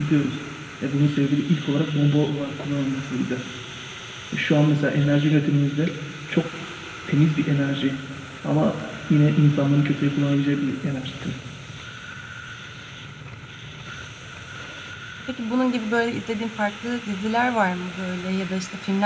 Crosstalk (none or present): none